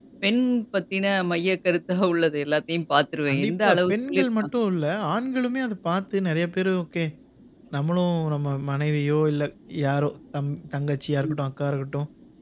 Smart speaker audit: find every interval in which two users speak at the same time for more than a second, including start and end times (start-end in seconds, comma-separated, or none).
3.3-4.5